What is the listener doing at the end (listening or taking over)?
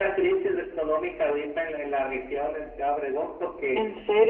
listening